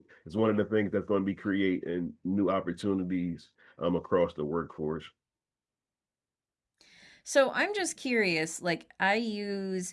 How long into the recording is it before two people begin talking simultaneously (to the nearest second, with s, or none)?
none